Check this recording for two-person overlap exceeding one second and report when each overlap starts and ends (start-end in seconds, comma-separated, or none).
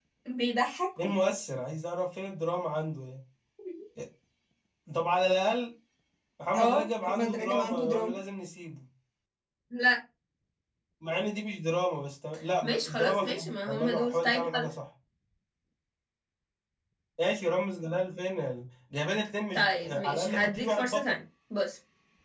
6.6-8.2, 12.6-14.7, 19.5-21.2